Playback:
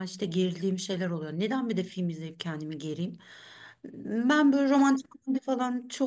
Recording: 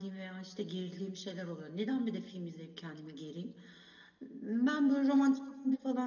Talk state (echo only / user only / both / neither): echo only